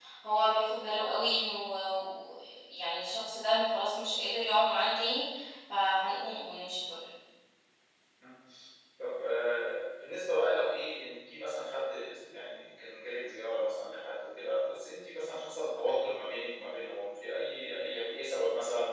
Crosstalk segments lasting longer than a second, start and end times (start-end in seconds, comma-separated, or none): none